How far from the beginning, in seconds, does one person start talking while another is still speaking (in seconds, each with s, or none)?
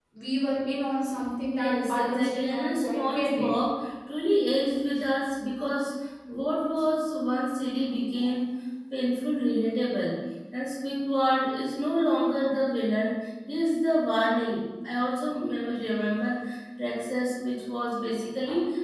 1.5 s